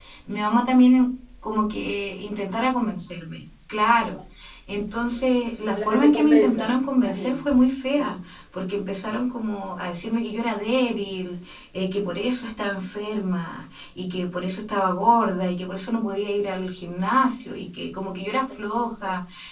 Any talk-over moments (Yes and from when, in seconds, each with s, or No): Yes, from 5.7 s